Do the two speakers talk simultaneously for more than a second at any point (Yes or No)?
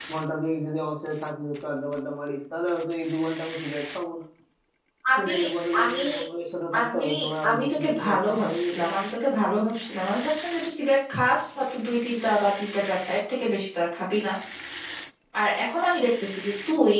Yes